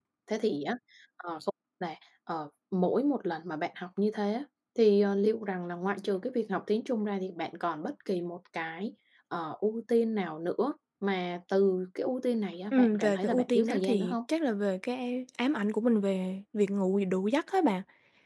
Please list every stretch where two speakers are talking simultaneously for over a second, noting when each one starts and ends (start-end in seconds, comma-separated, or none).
12.7-14.2